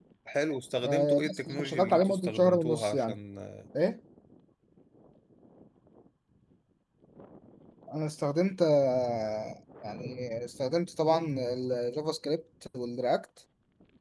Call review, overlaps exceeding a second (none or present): present